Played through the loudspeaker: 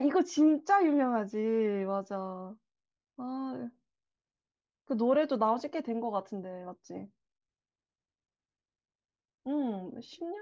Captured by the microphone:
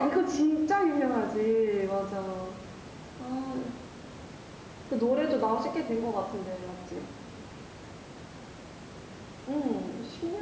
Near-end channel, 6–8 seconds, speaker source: echo only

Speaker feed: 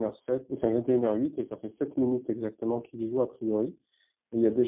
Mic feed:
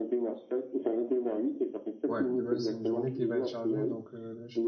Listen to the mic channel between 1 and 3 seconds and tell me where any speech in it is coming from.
both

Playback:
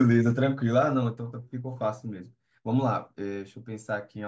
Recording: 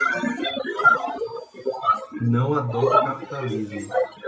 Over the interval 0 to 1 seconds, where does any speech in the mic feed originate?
echo only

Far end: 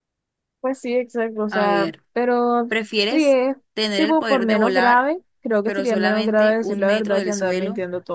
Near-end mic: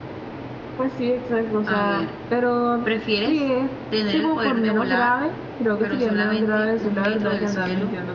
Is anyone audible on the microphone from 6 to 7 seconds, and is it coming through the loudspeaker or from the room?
echo only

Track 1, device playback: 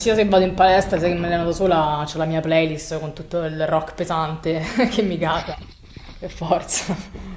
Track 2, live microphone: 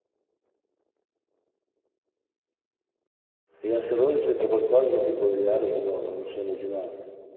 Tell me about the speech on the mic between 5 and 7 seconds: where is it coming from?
user only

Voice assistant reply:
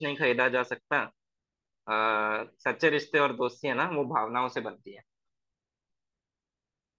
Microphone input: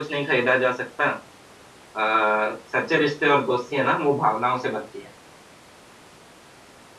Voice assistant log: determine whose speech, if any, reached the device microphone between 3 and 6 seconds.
echo only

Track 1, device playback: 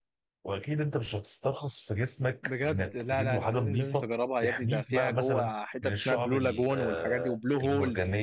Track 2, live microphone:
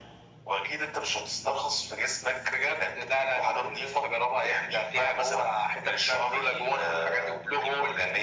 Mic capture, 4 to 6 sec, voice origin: echo only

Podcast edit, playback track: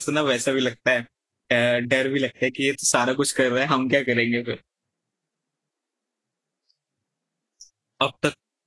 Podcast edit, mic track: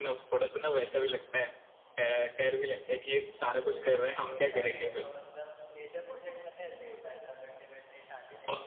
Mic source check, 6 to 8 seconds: user only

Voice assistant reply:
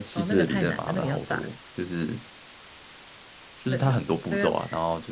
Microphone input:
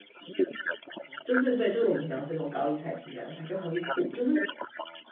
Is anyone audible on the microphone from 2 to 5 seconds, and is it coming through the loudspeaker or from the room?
both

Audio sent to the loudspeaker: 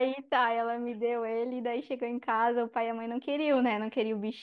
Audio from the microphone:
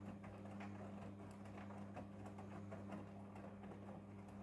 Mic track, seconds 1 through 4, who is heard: neither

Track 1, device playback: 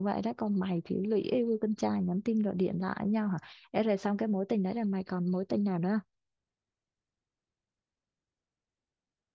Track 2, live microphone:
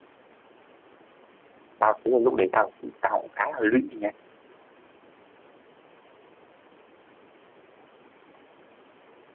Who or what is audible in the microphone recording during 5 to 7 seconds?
neither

